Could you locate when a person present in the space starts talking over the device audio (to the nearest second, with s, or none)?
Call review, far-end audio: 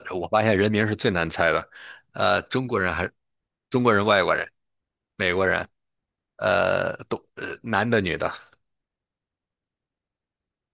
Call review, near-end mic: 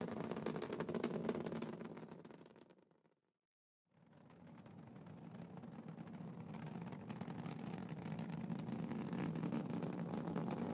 none